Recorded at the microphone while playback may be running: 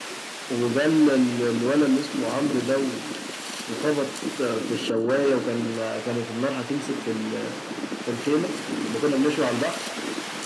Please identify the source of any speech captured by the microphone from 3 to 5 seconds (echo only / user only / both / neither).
echo only